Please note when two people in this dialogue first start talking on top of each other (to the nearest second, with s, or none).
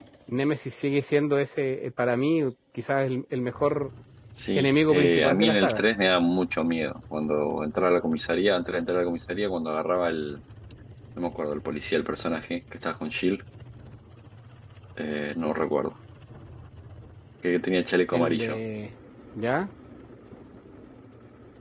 5 s